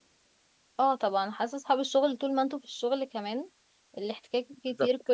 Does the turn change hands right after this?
No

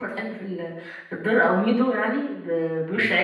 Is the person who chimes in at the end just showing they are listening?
Yes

